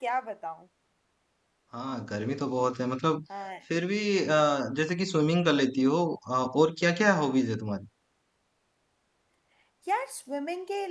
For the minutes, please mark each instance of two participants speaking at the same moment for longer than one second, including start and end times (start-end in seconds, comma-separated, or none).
none